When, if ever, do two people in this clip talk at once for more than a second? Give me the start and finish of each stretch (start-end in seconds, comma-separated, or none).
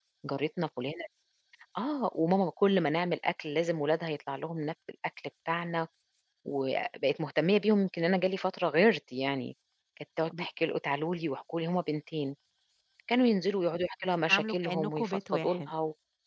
14.3-15.7